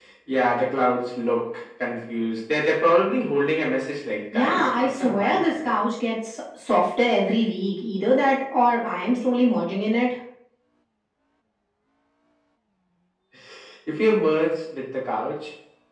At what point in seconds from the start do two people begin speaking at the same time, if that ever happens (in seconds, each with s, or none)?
4.3 s